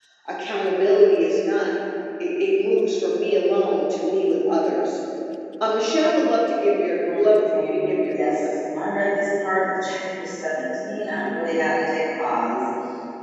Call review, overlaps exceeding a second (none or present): present